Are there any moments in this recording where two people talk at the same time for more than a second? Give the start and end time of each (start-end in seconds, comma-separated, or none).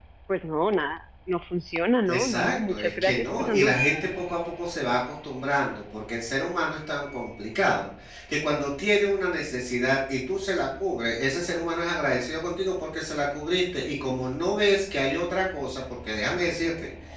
2.1-3.8